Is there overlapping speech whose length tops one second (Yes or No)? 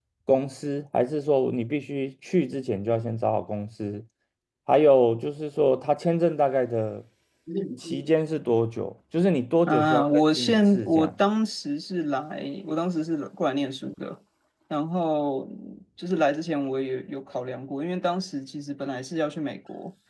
Yes